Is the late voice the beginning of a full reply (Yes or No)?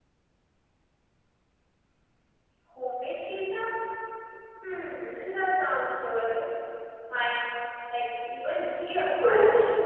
Yes